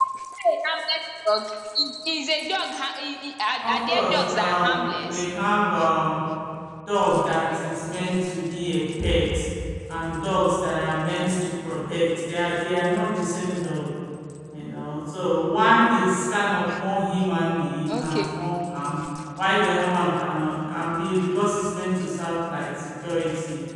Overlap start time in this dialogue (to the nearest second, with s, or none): 4 s